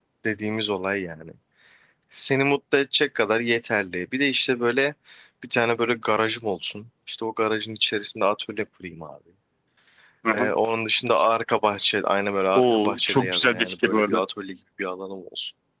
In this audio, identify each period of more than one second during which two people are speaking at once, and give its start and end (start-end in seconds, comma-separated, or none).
12.6-14.2